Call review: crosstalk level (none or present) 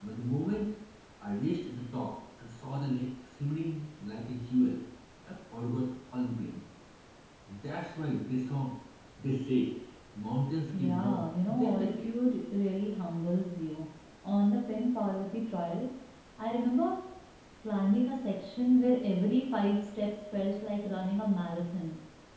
present